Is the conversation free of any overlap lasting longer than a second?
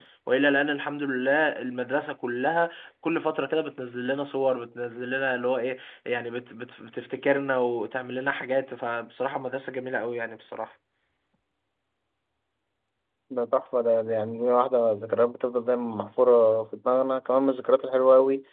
Yes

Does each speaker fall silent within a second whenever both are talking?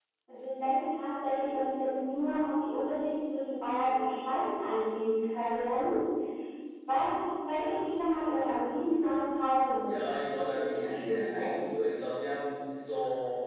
No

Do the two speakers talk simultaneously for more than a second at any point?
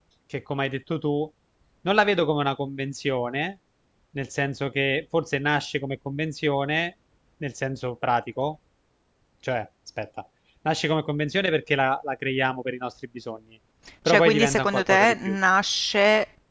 Yes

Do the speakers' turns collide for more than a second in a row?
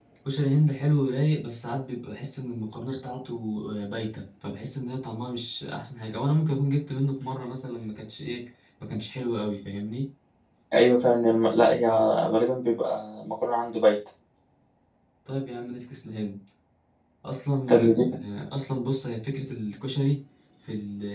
No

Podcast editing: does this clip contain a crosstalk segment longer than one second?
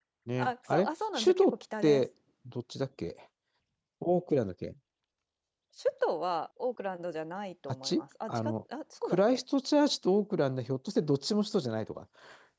Yes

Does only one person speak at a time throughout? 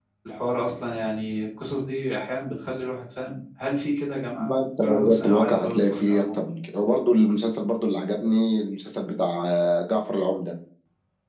No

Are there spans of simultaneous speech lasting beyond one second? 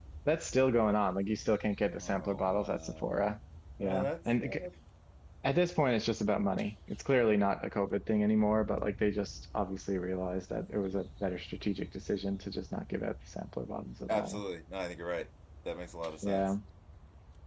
Yes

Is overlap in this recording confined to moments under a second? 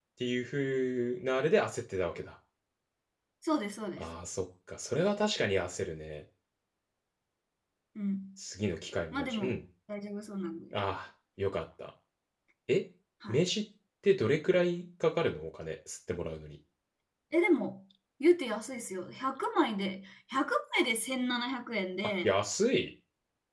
Yes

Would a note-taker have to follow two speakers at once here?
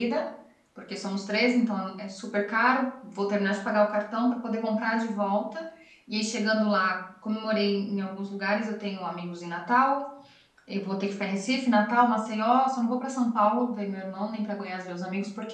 No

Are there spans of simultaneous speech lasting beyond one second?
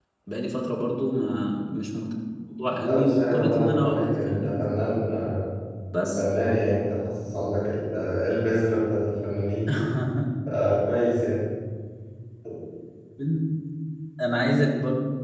Yes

